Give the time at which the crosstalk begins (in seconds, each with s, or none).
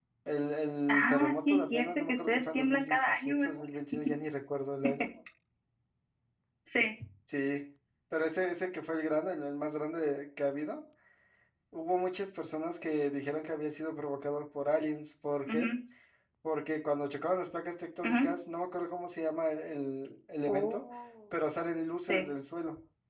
0.9 s